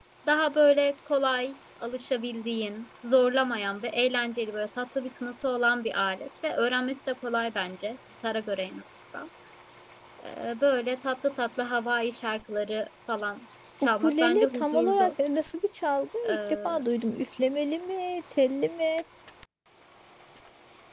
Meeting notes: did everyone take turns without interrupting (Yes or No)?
No